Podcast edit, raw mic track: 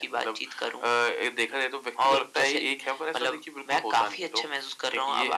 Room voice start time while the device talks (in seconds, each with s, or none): none